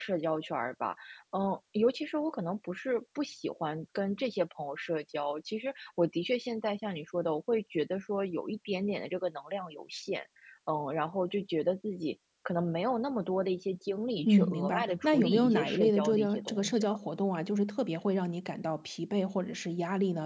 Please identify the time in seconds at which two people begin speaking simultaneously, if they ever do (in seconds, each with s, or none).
14.2 s